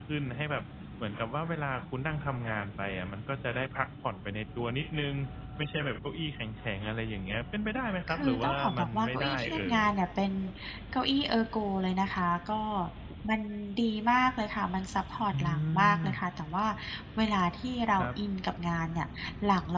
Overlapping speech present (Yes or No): Yes